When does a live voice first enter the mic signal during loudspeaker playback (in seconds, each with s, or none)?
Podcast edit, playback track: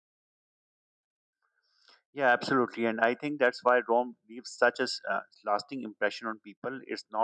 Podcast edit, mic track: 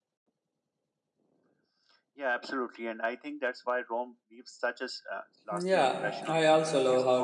5.5 s